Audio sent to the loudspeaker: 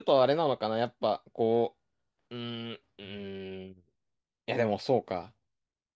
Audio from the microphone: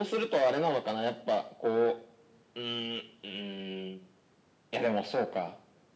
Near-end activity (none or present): none